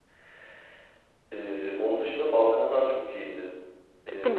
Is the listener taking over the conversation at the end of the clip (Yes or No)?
Yes